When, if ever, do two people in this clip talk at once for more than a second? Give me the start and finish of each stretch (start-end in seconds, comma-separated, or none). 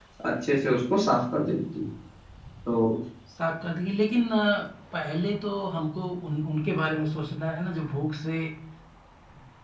none